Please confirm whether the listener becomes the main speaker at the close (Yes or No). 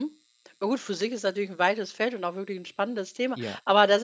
No